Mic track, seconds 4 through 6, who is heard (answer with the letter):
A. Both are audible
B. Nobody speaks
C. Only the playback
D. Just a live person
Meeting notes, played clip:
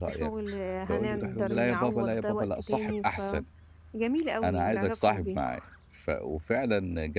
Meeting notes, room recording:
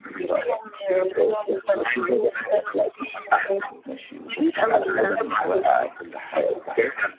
A